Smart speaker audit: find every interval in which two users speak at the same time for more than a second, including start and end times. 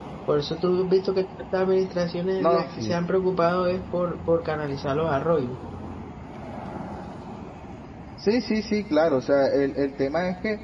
none

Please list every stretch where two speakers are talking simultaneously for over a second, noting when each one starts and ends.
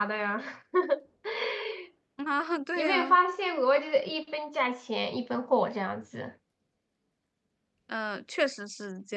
none

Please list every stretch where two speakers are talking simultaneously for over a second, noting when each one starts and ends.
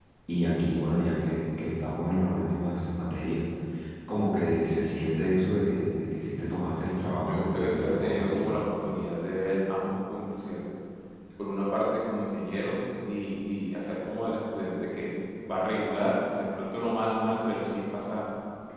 7.3-8.5

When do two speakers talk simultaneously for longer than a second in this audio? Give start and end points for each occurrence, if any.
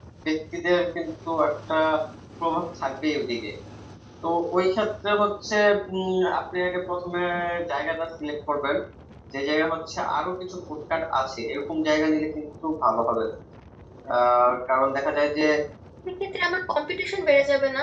none

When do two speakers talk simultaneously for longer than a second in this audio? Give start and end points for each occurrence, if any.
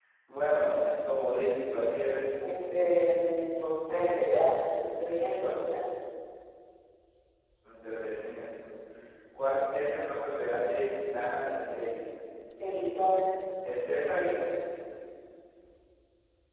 none

